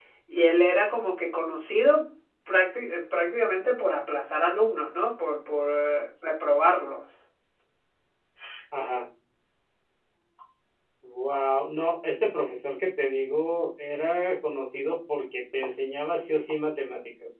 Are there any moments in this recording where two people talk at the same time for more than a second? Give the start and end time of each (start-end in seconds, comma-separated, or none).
none